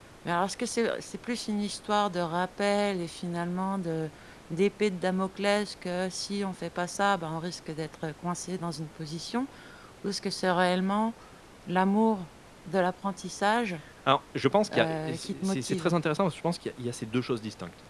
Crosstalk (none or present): present